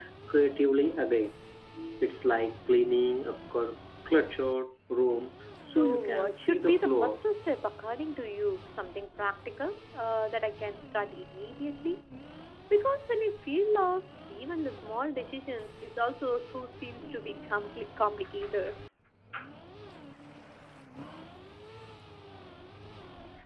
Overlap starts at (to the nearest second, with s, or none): 6 s